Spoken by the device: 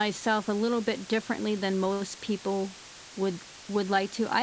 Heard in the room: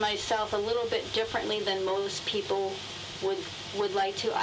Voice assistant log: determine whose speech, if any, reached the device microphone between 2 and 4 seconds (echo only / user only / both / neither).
echo only